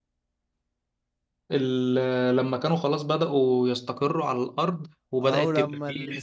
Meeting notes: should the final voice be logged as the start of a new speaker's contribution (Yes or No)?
Yes